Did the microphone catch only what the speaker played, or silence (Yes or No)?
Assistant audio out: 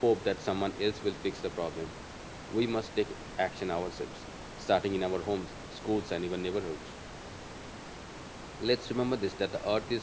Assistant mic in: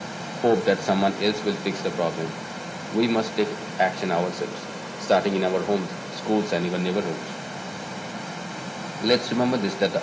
Yes